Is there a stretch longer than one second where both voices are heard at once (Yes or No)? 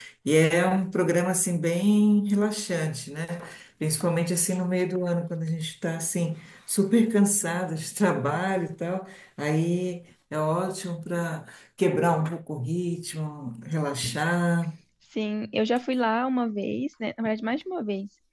No